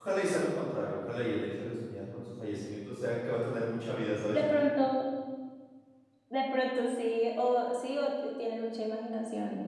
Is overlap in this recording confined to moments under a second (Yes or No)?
Yes